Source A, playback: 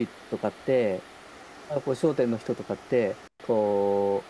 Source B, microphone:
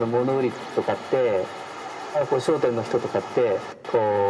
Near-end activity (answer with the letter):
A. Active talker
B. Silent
B